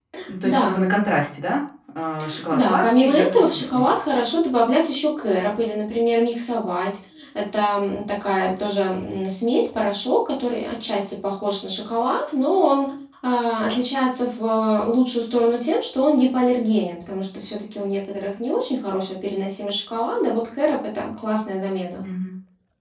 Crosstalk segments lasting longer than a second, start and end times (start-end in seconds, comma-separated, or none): 2.5-3.9